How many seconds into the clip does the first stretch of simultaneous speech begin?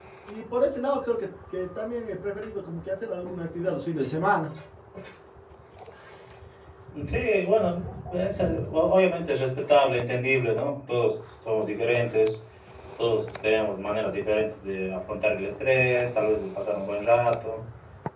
none

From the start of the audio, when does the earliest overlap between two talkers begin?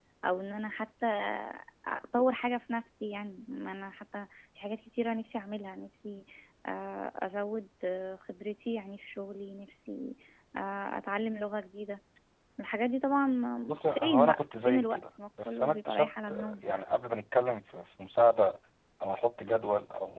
14 s

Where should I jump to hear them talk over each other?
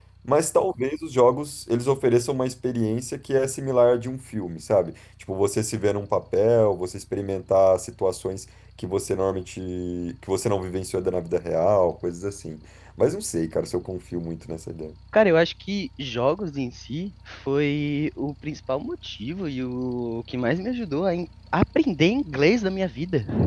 none

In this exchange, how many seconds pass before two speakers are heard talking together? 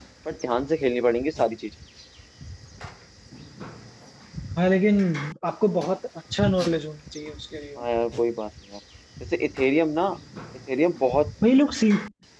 none

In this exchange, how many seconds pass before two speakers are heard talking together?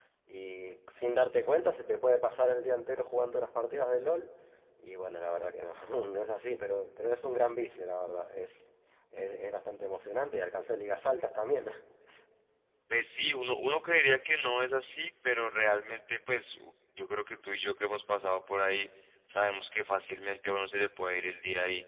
none

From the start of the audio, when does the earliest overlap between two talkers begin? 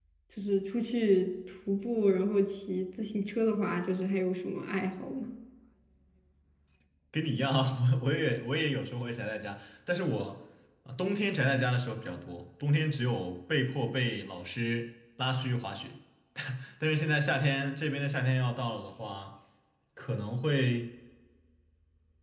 none

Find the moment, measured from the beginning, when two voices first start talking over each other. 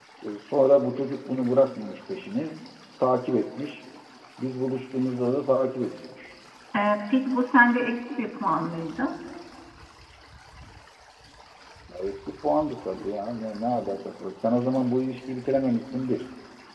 none

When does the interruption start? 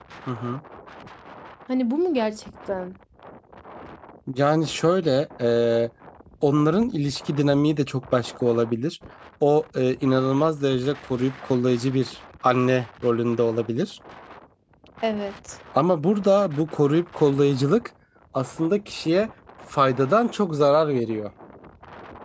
none

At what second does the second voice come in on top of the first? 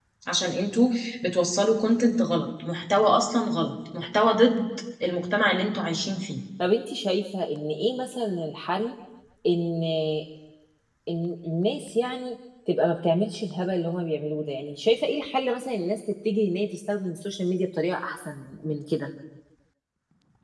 none

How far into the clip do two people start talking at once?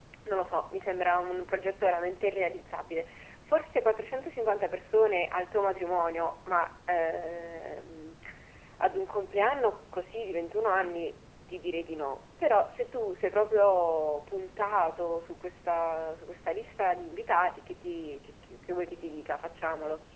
none

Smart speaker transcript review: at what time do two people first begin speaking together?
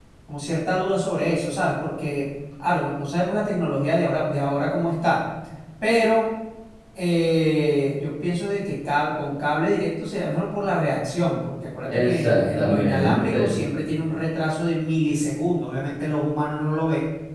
12 s

